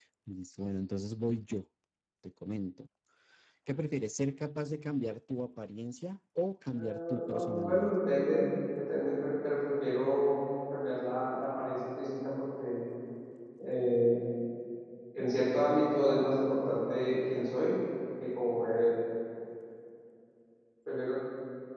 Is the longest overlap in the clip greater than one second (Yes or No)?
Yes